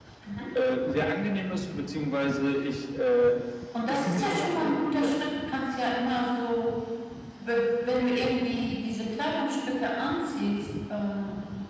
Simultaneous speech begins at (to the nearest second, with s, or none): 4 s